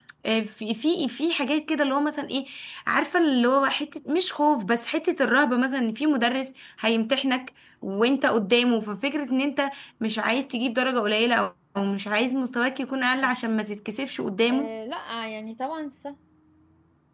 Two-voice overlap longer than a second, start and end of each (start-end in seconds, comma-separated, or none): none